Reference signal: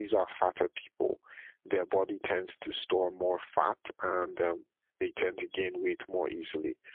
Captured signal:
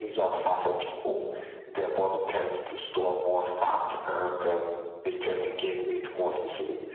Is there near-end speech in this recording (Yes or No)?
No